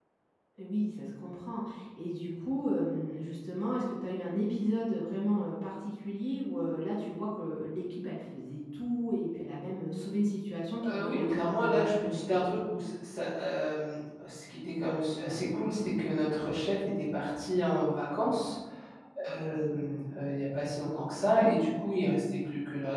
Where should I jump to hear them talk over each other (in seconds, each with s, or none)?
10.8 s